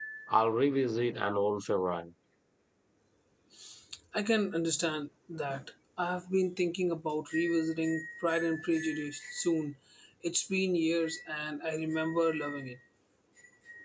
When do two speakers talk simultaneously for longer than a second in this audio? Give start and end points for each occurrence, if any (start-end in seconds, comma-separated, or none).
none